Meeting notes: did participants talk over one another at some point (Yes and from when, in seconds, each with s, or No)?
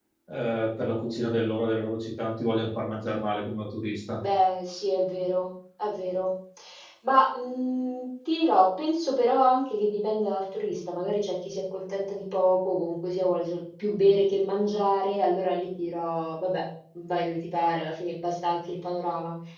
No